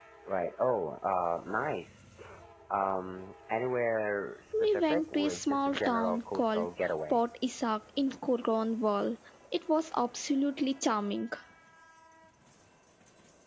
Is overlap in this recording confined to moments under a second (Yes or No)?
No